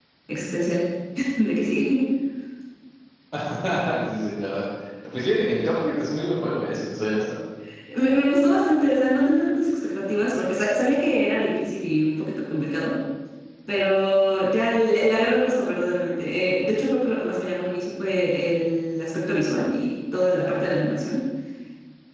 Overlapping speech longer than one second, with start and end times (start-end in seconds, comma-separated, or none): none